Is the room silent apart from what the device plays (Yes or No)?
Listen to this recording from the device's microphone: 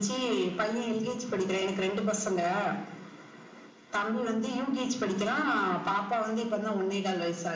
Yes